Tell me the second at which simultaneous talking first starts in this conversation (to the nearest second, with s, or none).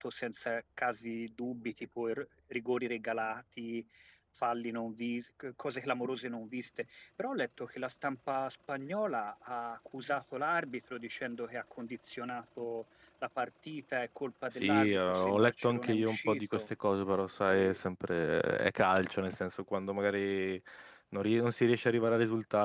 15 s